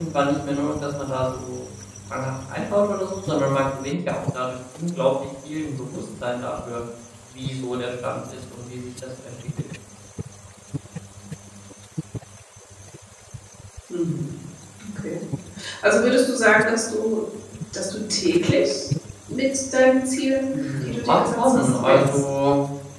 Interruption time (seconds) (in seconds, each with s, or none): 20.5 s